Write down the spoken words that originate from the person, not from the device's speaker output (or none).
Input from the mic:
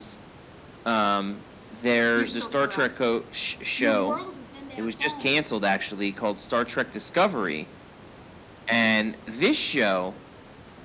You're so correct. Your world is in that phone.